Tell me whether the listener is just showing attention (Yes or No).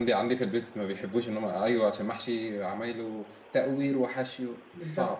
No